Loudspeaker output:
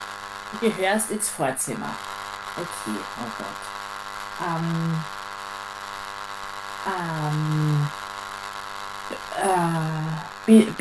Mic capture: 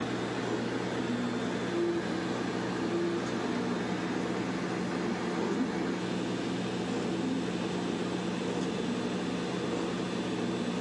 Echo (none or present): none